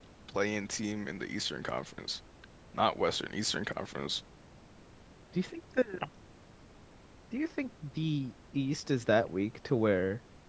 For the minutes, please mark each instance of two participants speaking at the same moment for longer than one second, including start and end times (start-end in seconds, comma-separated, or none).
none